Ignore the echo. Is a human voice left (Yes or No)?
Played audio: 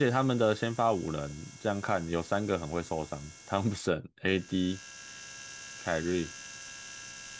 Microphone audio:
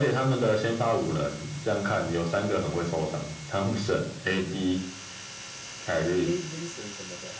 Yes